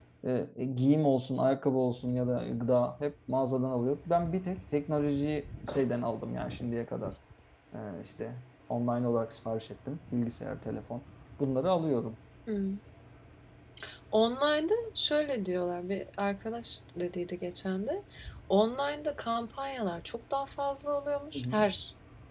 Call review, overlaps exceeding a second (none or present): none